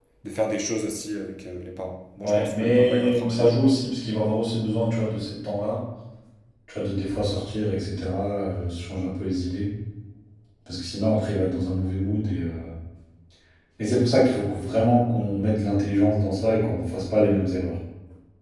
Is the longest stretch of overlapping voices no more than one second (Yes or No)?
No